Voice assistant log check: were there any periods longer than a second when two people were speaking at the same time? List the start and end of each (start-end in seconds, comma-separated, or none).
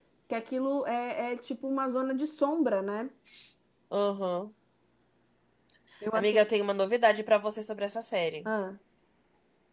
none